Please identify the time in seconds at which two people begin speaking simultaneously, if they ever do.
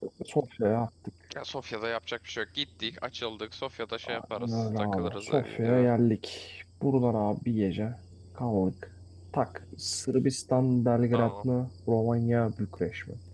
4 s

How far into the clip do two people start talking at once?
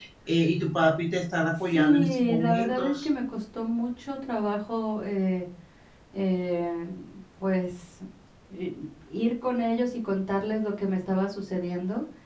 2 s

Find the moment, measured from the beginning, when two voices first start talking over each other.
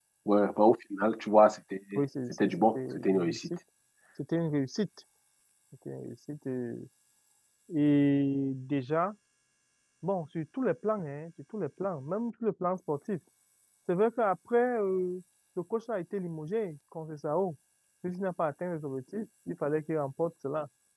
2 s

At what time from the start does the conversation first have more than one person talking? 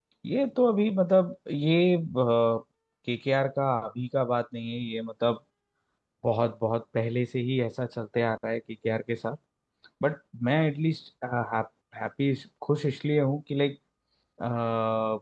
none

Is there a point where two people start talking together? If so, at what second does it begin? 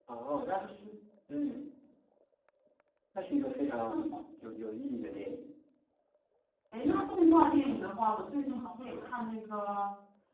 none

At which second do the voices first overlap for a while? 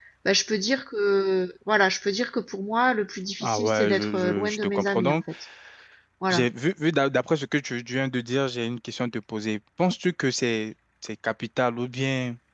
3 s

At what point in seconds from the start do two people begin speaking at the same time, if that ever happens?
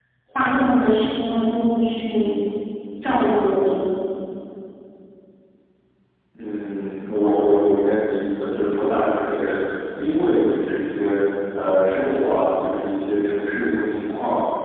none

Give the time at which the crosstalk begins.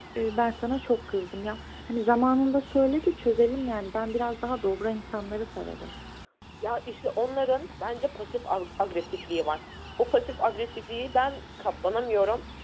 none

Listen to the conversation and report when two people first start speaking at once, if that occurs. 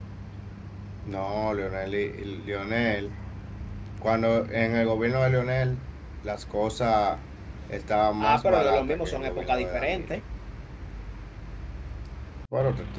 8 s

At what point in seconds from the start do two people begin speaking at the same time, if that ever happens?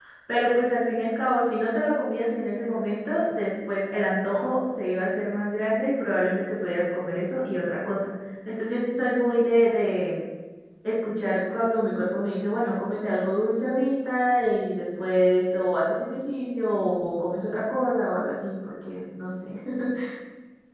none

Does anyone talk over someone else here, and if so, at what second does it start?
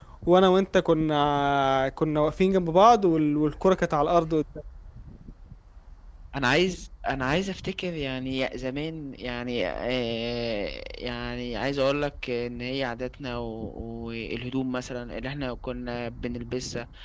none

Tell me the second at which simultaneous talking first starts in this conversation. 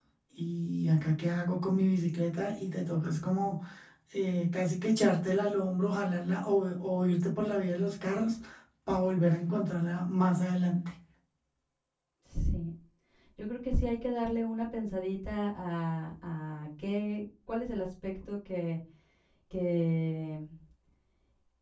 none

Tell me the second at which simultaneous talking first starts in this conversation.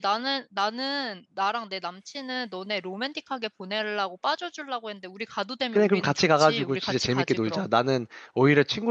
6 s

